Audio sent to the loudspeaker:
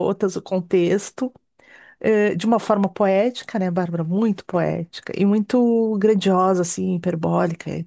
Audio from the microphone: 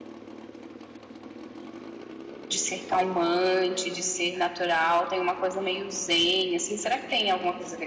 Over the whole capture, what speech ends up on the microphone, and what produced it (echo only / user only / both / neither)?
user only